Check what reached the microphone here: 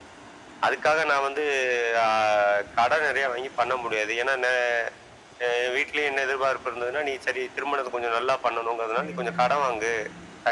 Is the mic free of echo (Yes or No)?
No